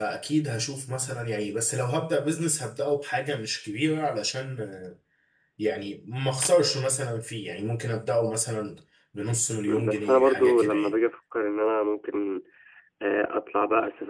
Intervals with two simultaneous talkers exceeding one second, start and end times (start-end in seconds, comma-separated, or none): 9.7-10.9